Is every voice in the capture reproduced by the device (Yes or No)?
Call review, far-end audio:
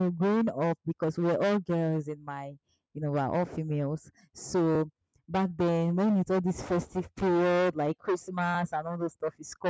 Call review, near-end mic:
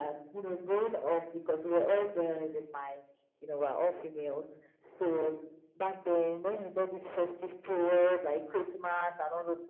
Yes